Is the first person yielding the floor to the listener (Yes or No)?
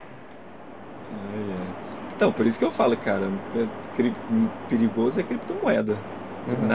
Yes